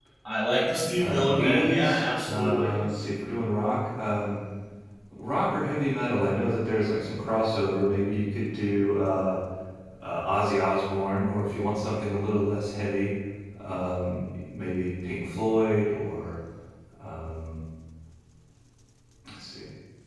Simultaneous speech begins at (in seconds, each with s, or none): 1.0 s